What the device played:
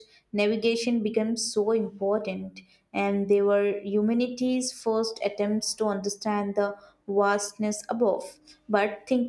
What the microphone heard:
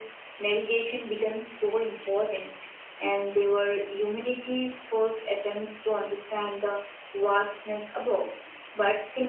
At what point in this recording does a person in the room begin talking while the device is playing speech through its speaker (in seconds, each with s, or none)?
none